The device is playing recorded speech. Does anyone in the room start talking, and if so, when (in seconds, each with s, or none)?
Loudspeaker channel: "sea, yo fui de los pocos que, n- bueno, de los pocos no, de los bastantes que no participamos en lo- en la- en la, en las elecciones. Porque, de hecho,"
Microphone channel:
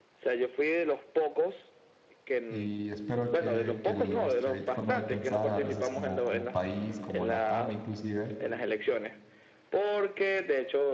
2.5 s